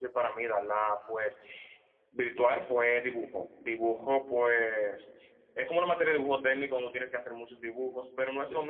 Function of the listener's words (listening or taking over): listening